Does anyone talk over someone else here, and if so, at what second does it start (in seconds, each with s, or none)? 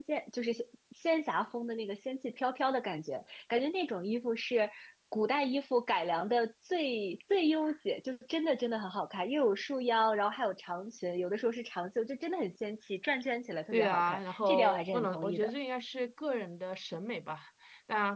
13.7 s